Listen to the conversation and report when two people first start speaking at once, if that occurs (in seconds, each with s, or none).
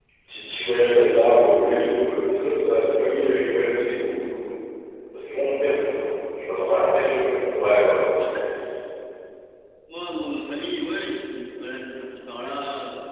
none